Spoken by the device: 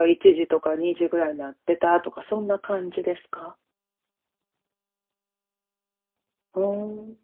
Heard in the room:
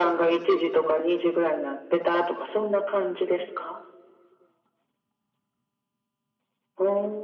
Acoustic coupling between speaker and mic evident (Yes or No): Yes